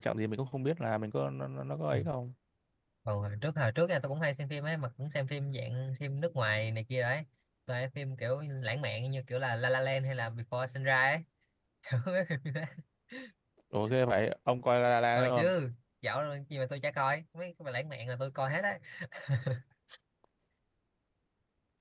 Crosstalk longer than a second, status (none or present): none